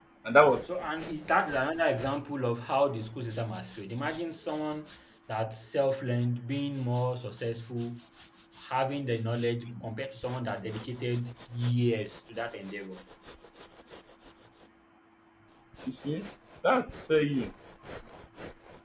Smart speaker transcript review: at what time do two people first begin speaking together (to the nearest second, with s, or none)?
none